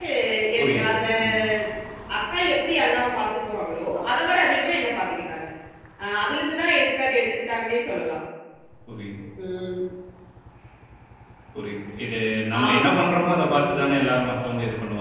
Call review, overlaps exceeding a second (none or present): present